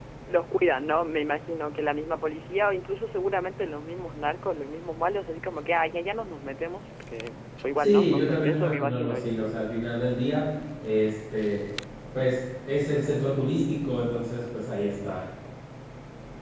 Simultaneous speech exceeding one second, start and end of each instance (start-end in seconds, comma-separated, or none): 7.8-9.4